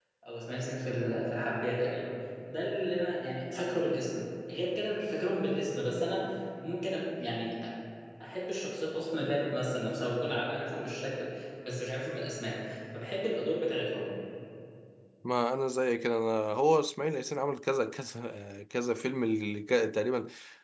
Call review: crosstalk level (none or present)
none